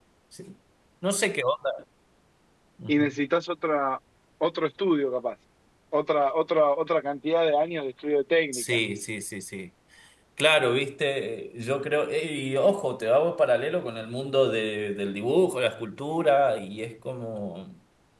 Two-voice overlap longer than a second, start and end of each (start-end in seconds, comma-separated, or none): none